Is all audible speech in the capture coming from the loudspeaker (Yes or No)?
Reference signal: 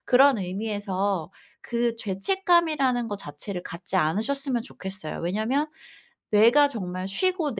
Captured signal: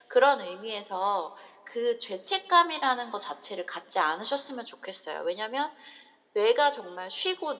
Yes